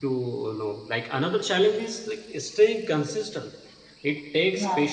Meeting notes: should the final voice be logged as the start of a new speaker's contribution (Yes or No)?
No